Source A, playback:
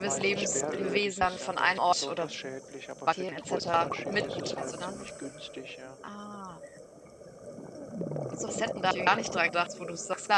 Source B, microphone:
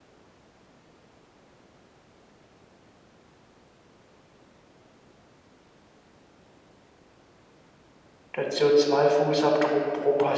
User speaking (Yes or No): Yes